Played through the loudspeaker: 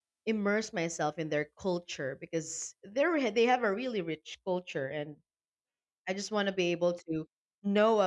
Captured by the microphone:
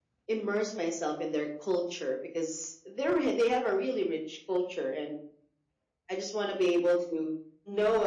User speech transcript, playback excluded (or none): none